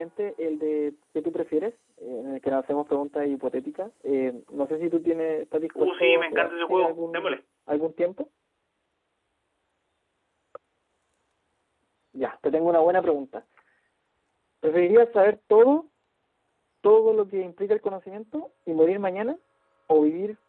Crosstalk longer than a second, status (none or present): present